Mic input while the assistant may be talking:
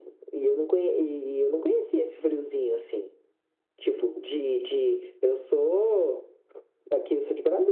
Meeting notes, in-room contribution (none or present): none